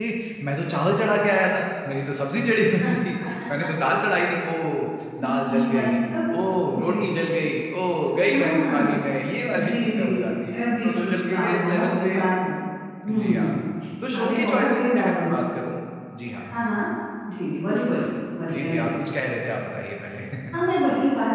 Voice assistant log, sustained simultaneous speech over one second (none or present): present